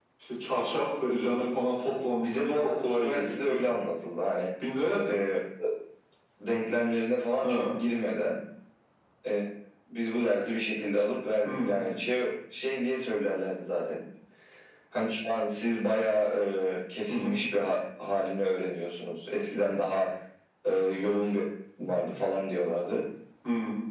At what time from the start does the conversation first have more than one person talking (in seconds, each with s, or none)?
2.2 s